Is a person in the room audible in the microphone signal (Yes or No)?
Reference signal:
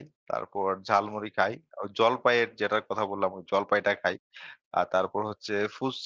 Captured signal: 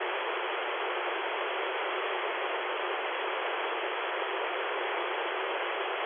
No